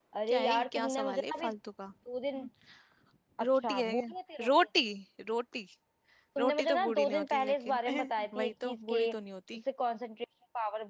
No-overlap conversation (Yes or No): No